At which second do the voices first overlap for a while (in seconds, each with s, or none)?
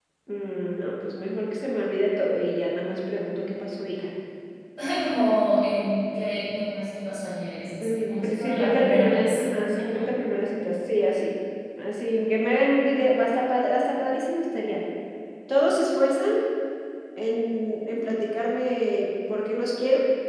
7.8 s